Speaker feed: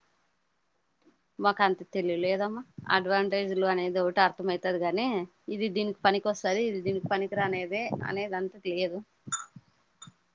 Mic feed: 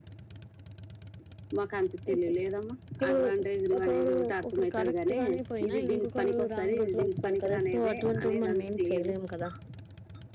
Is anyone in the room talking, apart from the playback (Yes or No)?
Yes